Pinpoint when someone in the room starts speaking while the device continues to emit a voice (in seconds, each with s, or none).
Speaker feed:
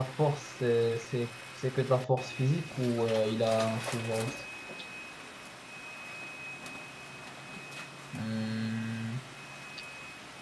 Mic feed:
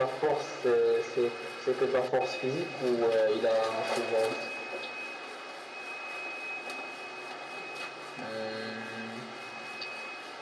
none